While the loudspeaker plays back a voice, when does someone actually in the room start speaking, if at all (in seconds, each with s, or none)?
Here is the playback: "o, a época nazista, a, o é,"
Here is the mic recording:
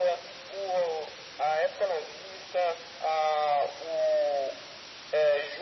none